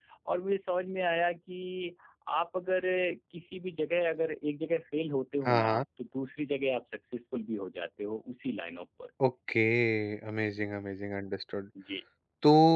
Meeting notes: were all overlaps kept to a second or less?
Yes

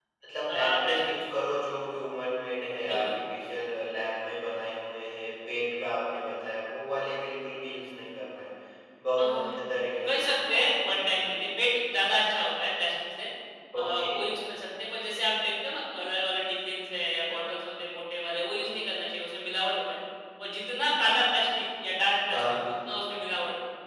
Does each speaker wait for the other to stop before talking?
No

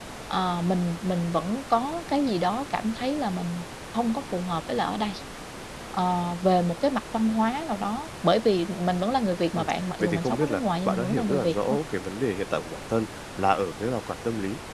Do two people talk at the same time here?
Yes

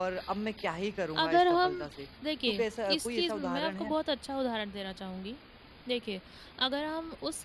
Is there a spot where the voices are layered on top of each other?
Yes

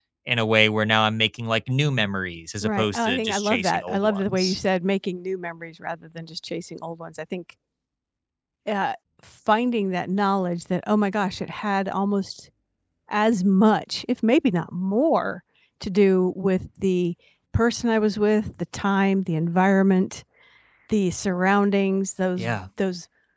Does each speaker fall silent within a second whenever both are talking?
No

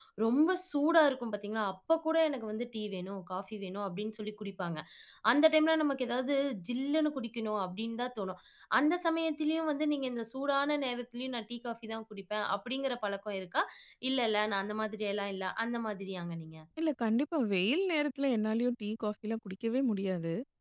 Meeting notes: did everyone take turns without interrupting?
Yes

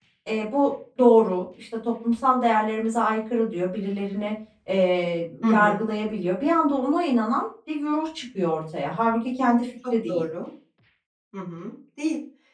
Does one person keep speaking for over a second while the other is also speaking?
No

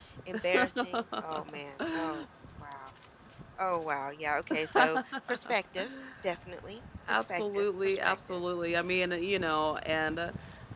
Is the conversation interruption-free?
No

